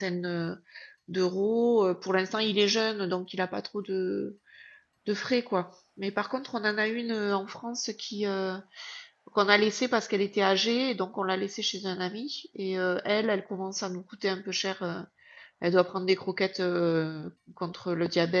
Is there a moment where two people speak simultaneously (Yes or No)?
No